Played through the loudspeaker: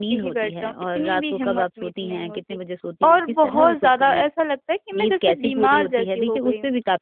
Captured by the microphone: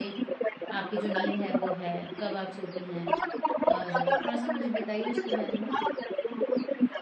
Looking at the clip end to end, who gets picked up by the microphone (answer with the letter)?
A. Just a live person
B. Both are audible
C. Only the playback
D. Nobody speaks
B